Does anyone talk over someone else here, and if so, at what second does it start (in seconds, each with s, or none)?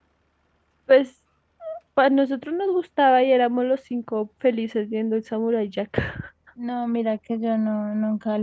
none